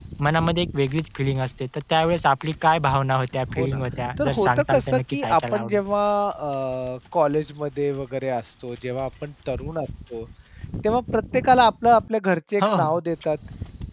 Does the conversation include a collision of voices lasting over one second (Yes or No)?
Yes